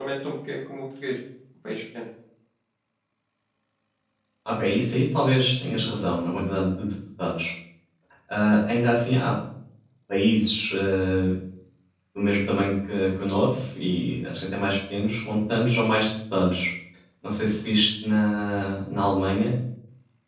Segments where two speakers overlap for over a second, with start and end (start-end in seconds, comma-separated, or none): none